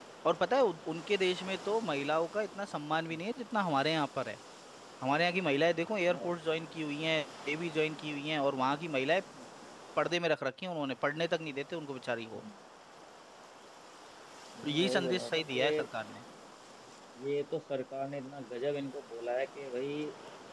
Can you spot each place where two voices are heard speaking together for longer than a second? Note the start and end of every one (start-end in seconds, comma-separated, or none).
14.6-15.9